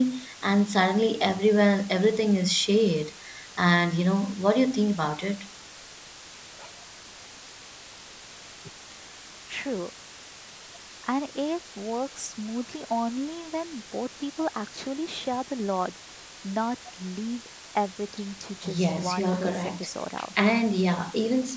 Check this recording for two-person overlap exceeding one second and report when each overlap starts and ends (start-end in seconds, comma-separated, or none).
18.6-19.9